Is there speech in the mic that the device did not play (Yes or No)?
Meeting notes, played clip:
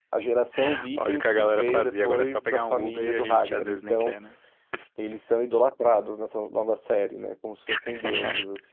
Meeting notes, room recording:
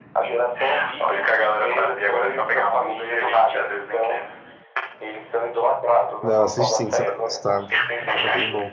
Yes